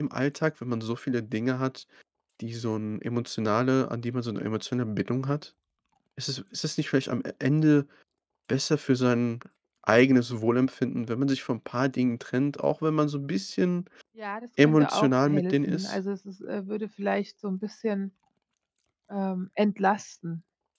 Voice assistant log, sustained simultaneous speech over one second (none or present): present